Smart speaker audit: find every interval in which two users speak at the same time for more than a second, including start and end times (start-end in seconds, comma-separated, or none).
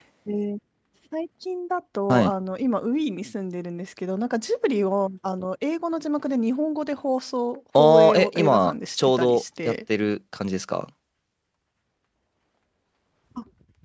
7.8-9.7